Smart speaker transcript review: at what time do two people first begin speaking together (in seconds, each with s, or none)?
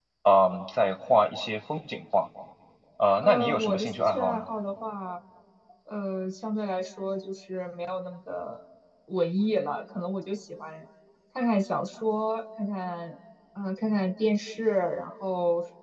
3.2 s